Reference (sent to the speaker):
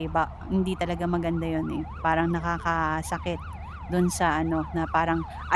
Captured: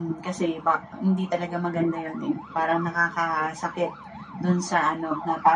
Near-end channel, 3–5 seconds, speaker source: echo only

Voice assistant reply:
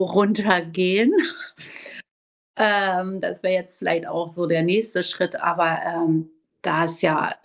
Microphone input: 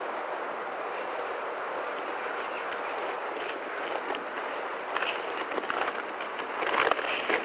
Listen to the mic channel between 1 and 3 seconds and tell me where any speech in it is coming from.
neither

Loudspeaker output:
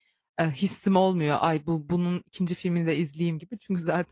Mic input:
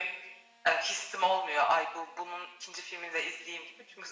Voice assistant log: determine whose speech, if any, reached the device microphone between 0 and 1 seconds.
echo only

